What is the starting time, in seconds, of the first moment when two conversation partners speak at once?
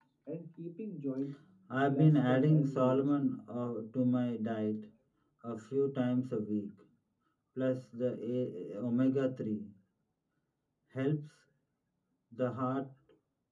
1.7 s

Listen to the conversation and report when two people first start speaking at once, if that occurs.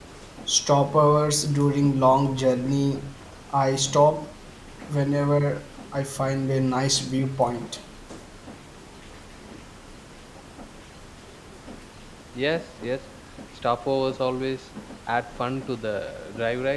none

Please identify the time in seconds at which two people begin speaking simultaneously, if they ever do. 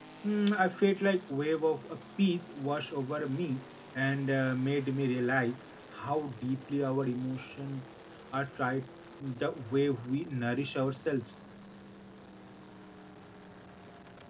none

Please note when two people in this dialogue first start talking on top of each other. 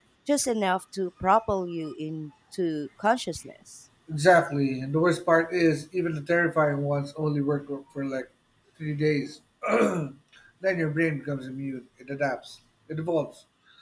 none

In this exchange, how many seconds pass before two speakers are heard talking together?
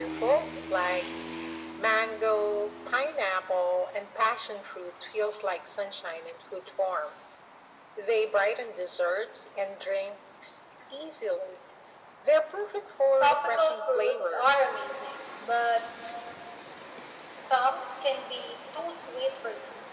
13.2 s

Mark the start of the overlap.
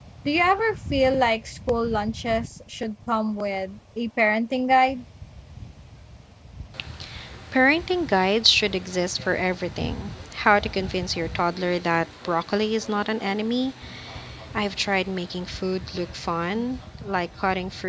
none

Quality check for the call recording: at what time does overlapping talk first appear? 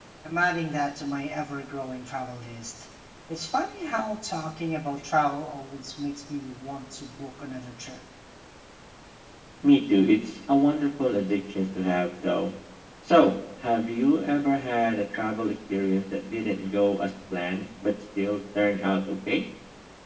none

